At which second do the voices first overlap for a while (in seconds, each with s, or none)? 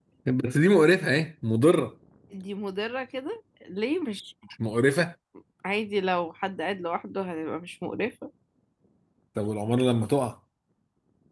none